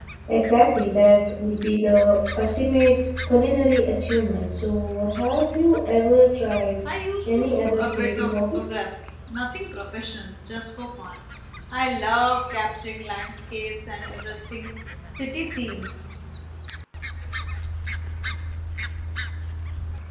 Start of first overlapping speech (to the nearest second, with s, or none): 7 s